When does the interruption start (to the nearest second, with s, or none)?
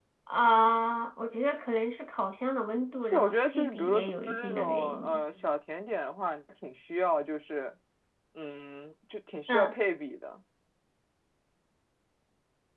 3 s